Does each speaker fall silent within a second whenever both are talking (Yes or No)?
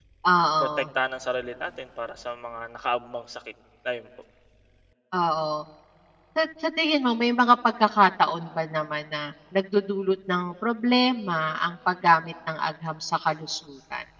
Yes